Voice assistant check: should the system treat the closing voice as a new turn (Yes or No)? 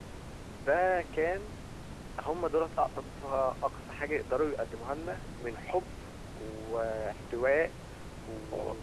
Yes